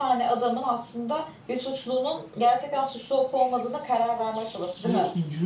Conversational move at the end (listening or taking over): taking over